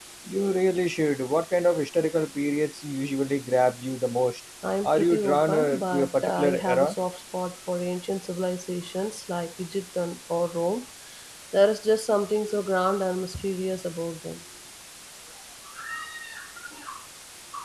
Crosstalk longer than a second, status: present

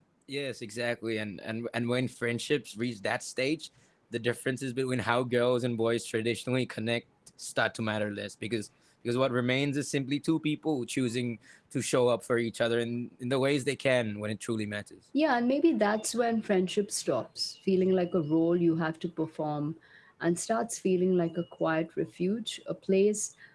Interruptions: none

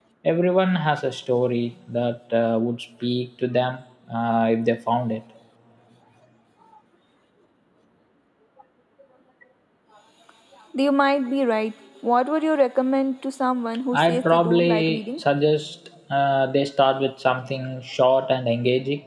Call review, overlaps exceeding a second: present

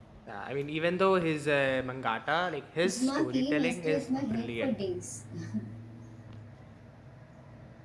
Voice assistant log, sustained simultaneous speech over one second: present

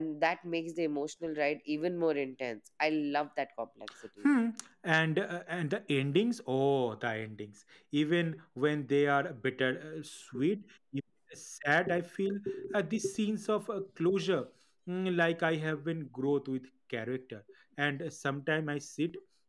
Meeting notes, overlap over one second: none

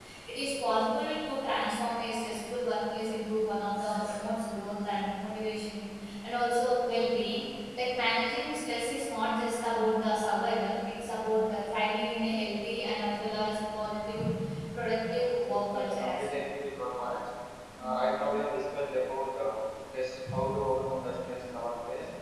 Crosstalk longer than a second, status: present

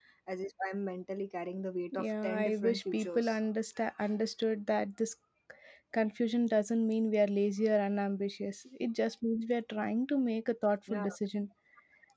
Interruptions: present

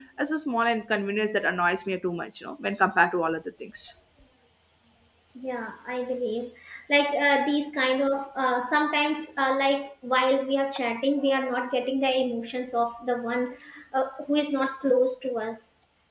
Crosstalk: none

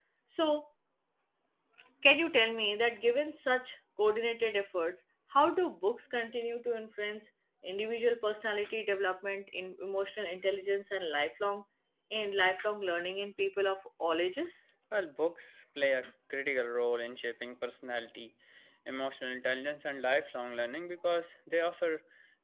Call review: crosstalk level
none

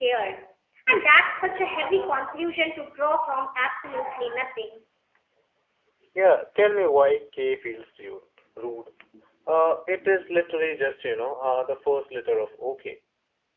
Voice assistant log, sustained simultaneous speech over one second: none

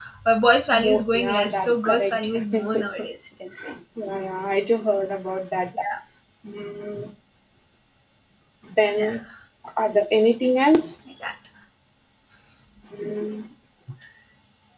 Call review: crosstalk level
present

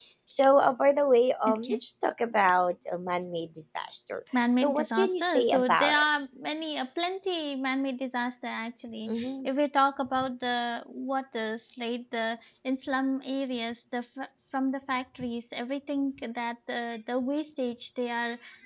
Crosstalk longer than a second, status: present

